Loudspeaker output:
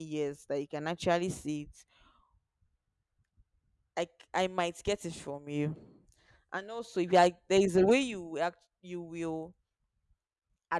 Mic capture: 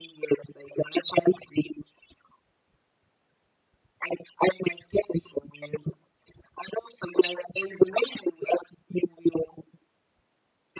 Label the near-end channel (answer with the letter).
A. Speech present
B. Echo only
B